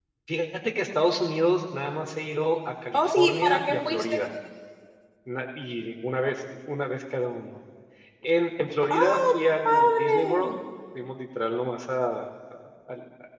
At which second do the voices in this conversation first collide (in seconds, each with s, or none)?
2.9 s